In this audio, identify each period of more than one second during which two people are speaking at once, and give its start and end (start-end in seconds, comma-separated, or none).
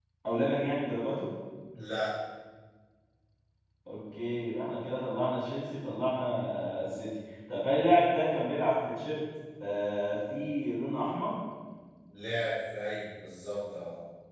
none